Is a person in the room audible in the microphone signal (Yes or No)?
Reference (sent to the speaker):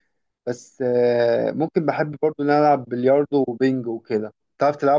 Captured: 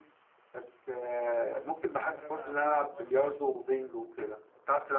Yes